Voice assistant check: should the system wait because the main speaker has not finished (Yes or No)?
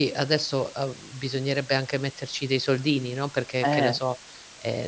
Yes